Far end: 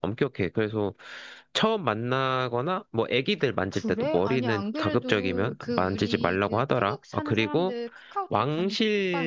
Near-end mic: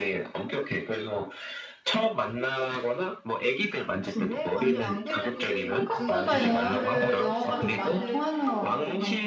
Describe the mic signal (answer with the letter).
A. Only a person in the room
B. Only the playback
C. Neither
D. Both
D